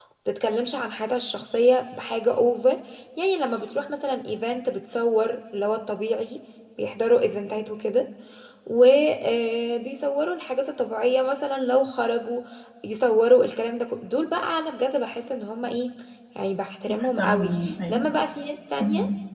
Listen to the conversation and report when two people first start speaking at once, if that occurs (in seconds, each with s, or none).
16.9 s